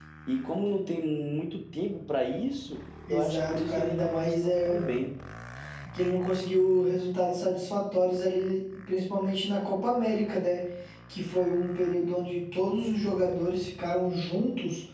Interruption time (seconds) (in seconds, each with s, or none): 3.1 s